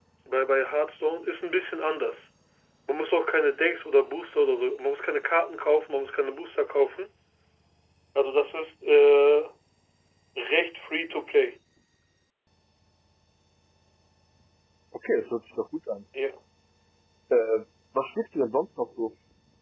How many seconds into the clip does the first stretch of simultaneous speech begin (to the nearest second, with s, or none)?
none